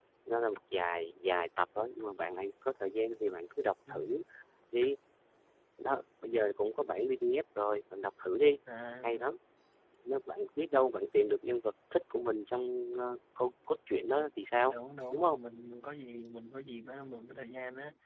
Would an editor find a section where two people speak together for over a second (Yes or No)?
No